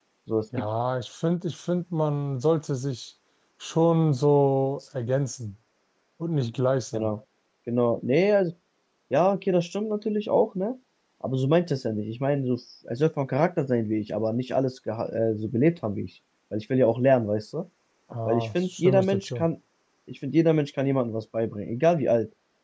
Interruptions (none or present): present